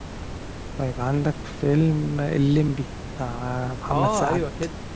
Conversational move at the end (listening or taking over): taking over